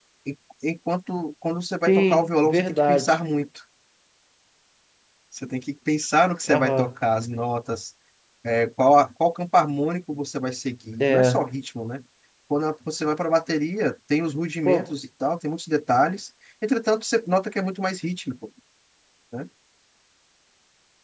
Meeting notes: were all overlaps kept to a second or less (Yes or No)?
No